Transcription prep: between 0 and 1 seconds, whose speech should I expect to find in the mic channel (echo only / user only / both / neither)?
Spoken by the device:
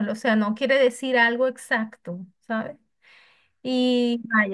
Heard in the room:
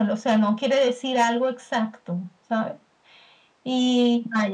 echo only